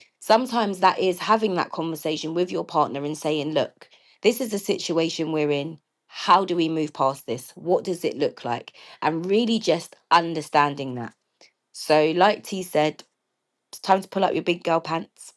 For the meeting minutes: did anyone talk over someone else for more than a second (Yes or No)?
No